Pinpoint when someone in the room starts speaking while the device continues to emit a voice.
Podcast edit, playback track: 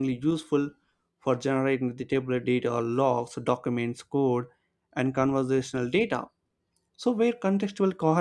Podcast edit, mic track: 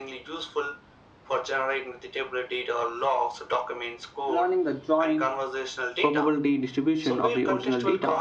4 s

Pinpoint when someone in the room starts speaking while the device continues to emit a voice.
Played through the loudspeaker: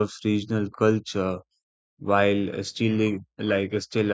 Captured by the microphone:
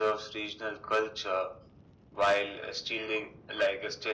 none

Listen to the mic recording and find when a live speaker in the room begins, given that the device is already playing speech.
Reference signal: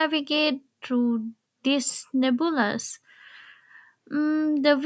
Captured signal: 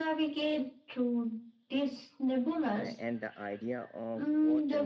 3 s

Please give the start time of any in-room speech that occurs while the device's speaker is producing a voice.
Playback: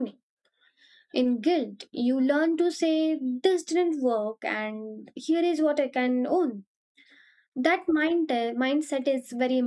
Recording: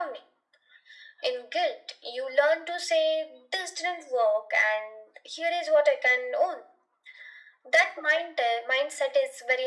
none

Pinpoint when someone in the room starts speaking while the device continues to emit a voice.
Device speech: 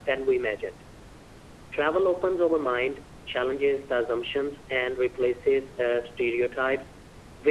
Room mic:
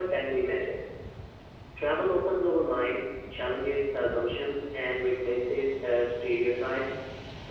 none

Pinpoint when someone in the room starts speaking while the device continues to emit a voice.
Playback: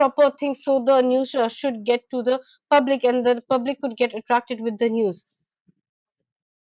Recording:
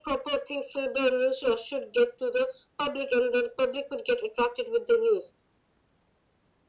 none

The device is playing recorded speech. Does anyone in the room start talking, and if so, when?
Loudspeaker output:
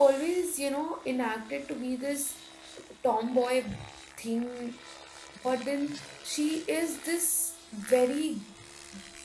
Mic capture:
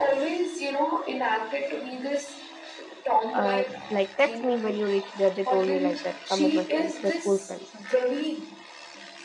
3 s

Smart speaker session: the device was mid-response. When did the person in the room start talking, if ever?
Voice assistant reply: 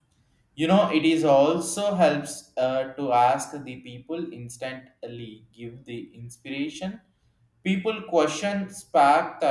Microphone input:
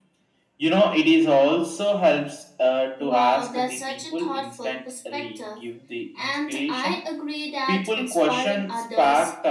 3 s

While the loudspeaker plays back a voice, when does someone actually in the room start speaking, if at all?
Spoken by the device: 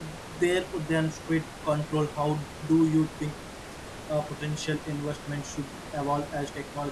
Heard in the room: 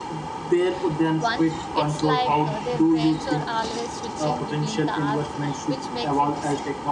1 s

